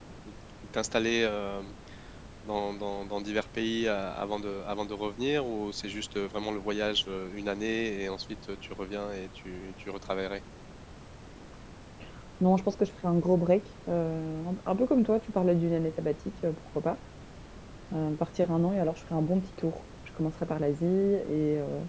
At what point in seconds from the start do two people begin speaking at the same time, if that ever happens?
none

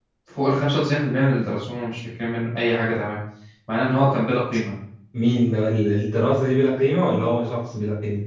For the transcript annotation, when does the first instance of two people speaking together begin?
none

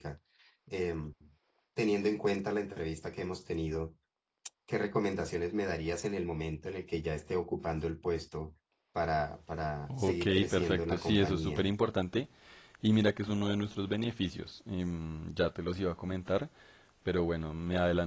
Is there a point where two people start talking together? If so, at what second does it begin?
9.9 s

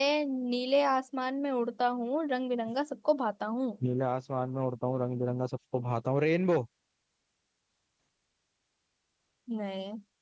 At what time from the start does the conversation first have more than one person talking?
none

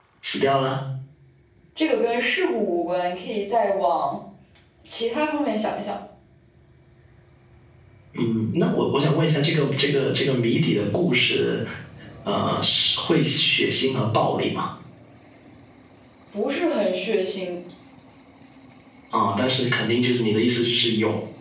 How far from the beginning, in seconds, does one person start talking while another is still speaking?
none

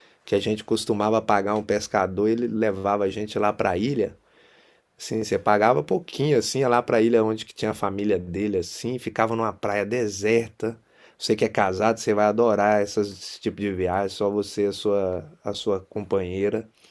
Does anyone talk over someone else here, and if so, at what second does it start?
none

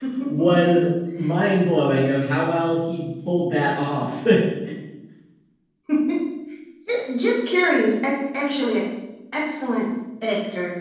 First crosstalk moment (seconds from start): none

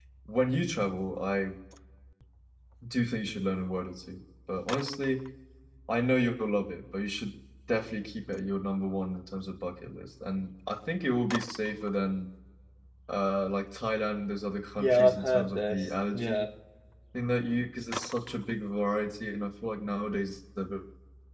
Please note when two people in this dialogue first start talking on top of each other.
14.8 s

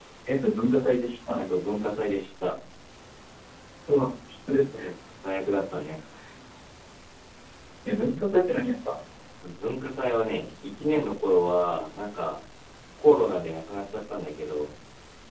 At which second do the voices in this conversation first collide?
none

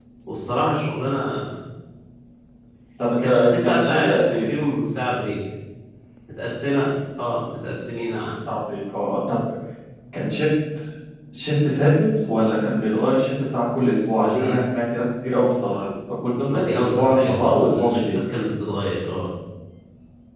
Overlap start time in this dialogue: 3.2 s

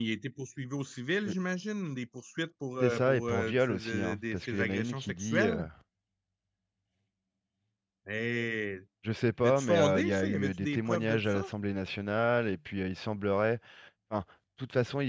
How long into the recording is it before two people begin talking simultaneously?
2.8 s

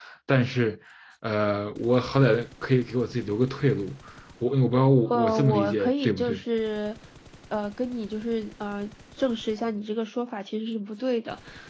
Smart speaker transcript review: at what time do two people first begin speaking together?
5.1 s

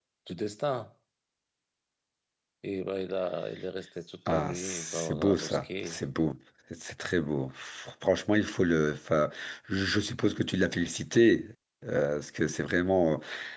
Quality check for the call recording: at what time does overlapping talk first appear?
4.3 s

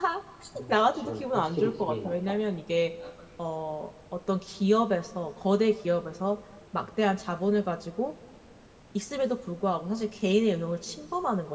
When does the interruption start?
0.7 s

